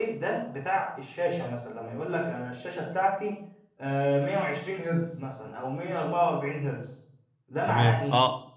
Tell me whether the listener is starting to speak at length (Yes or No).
Yes